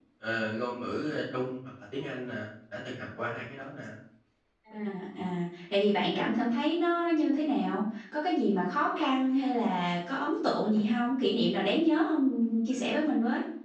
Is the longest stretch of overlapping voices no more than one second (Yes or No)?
Yes